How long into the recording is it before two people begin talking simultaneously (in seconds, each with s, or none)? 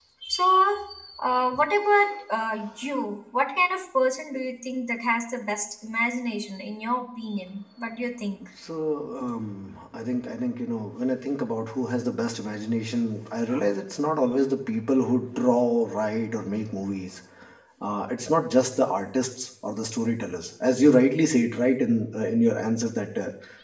none